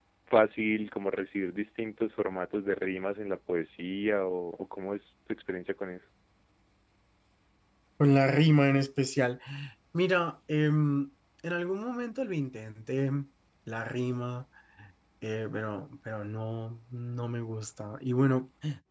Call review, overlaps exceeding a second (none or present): none